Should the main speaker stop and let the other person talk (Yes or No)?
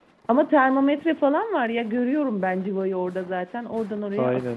Yes